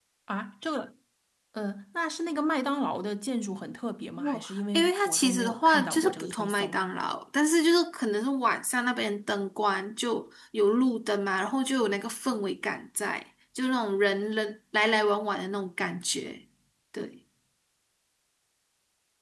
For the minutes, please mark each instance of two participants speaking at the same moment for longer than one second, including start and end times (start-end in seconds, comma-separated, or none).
4.2-6.8